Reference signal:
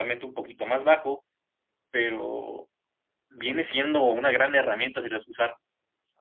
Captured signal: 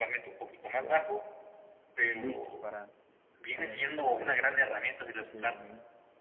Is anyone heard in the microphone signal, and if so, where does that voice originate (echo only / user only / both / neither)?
both